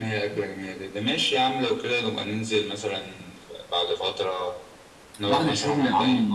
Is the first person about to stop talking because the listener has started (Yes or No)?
Yes